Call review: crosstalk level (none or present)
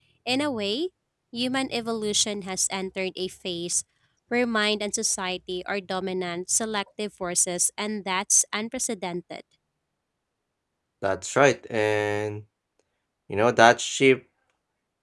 none